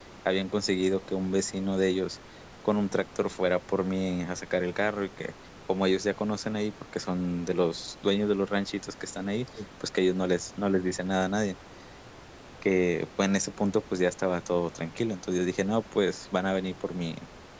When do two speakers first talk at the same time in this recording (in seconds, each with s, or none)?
none